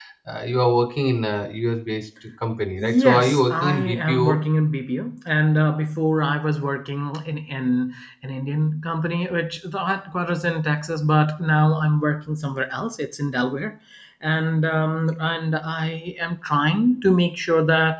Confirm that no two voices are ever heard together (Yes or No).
No